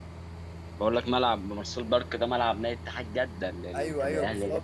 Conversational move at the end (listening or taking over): taking over